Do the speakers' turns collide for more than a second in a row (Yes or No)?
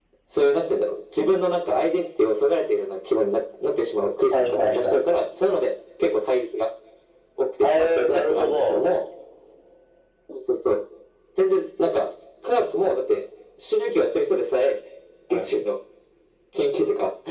Yes